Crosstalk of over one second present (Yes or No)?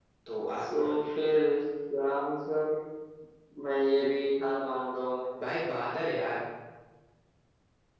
No